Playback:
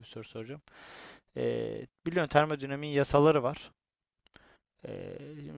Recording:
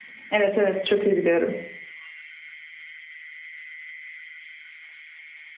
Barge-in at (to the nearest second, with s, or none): 0 s